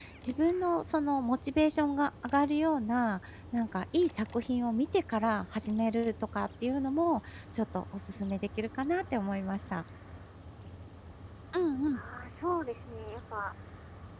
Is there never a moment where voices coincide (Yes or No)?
Yes